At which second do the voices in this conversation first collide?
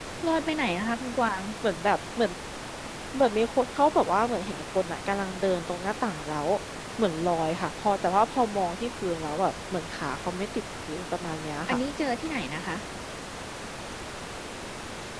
none

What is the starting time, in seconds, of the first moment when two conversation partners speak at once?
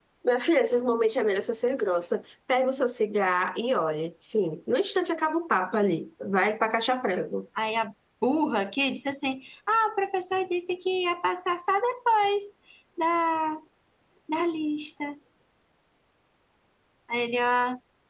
none

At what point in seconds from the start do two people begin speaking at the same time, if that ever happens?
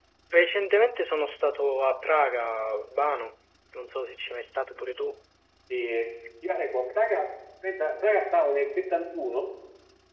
none

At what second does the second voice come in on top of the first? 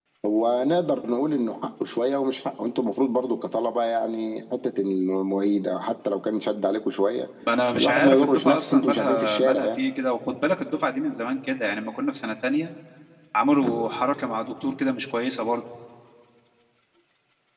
8 s

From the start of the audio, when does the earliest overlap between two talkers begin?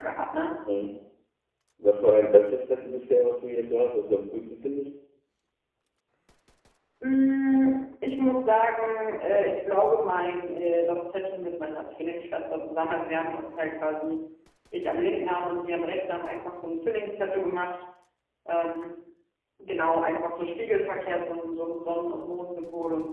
none

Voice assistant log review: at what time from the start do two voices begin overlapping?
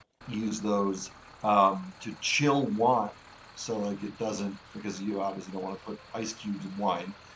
none

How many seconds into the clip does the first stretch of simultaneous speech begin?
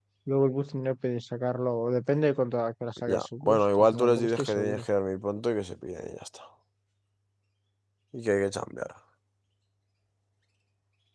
3 s

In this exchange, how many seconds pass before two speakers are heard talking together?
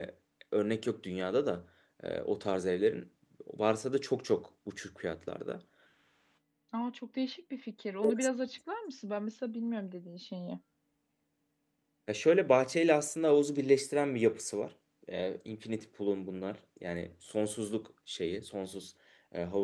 none

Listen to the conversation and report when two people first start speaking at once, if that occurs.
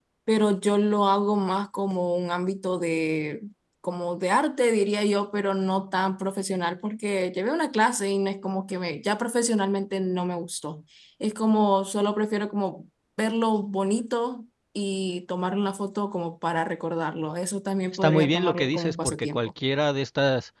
18 s

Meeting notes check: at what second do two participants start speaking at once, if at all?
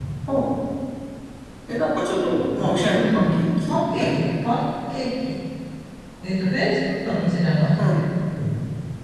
3 s

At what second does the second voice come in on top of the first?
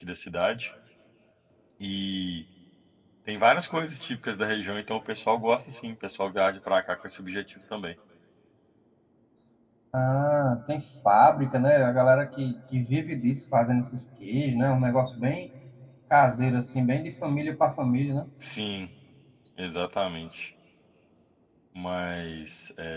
none

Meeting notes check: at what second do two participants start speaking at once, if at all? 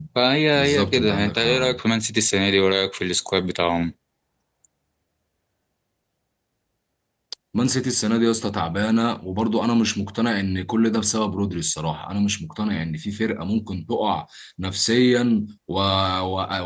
1 s

